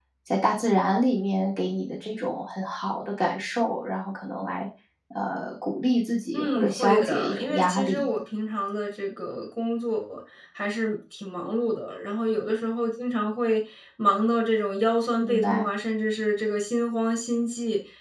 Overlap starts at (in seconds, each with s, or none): 6.3 s